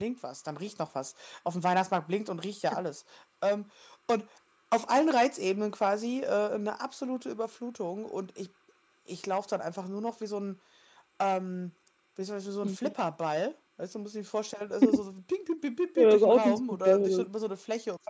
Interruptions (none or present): present